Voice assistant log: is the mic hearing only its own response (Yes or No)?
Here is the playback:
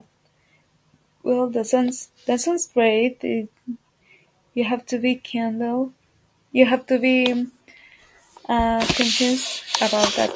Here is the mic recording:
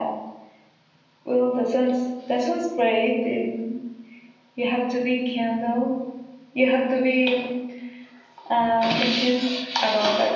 Yes